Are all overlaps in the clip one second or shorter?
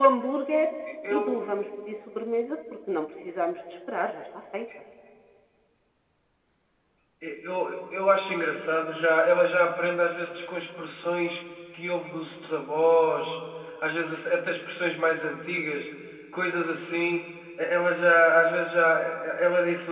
Yes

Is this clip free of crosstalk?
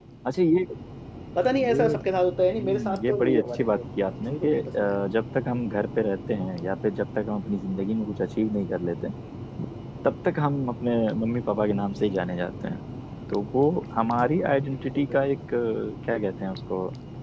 No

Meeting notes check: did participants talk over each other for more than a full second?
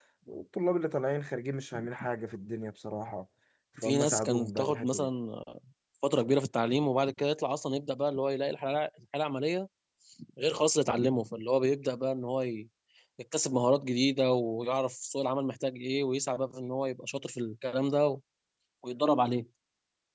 Yes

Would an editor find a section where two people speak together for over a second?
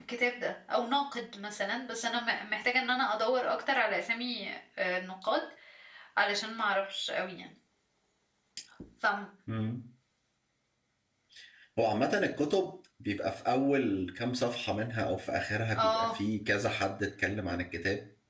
No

